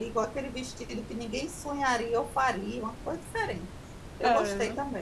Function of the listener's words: taking over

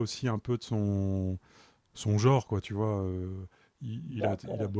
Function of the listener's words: listening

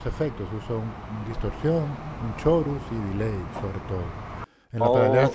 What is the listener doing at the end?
taking over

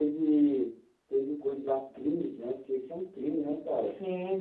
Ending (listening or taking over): taking over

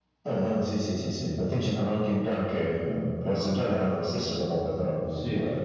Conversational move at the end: taking over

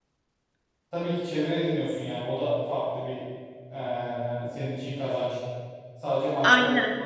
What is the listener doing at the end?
taking over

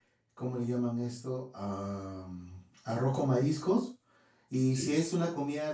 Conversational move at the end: listening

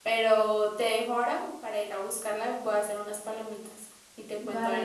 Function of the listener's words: taking over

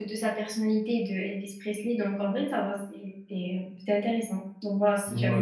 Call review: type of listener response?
taking over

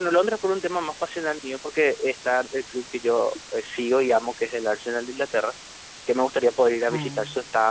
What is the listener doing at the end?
listening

